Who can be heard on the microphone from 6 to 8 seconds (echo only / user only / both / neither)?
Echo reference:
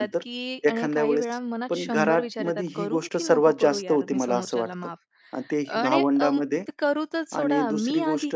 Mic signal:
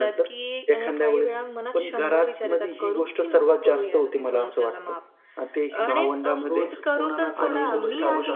both